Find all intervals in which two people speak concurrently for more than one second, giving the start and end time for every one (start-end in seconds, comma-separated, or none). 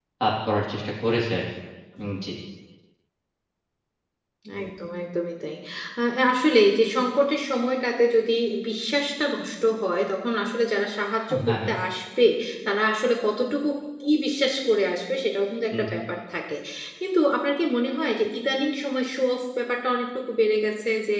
none